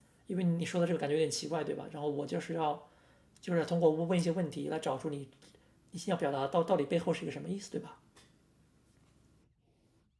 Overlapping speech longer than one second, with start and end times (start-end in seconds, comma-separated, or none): none